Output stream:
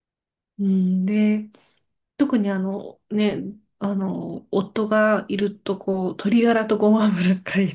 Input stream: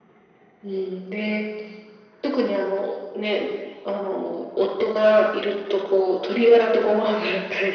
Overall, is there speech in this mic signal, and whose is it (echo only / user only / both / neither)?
echo only